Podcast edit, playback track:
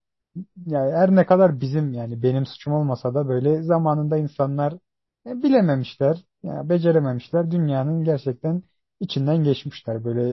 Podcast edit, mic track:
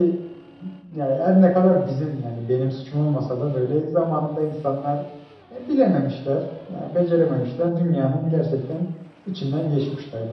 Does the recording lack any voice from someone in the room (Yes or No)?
Yes